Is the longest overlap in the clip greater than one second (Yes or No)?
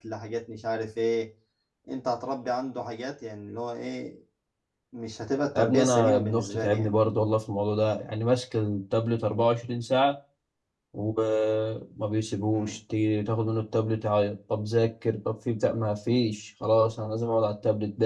Yes